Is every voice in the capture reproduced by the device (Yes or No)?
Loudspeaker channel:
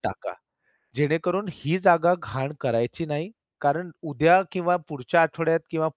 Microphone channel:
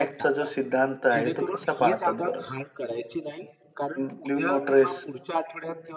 No